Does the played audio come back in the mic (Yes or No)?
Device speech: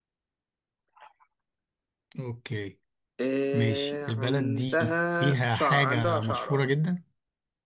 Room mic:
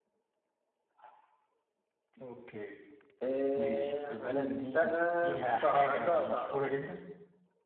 Yes